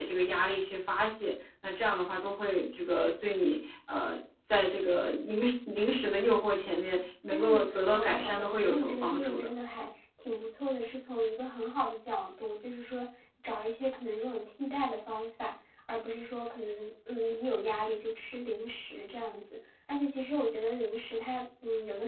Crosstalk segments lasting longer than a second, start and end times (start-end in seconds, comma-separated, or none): 7.3-9.5